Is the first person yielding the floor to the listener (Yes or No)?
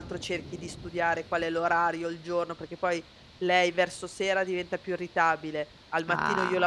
No